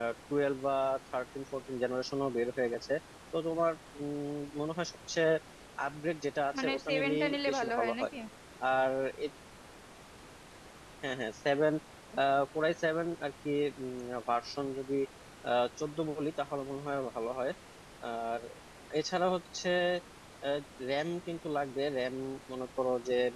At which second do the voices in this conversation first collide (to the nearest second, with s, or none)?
7 s